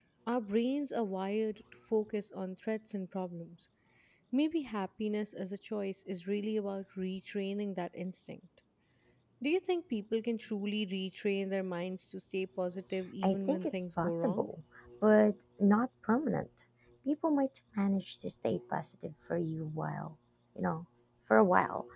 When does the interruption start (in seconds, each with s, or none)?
13.2 s